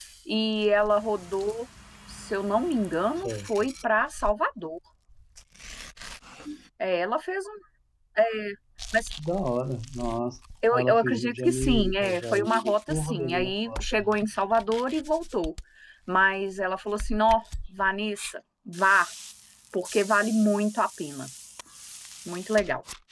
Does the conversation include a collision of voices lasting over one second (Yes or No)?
Yes